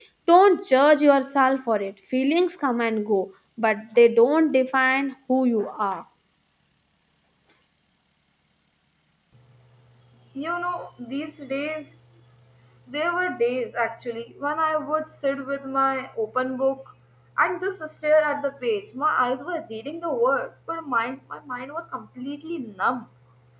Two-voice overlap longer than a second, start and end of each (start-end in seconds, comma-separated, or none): none